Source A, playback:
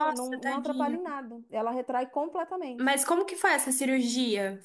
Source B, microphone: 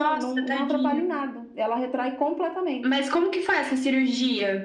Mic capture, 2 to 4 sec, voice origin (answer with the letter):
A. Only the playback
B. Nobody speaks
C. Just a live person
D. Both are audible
A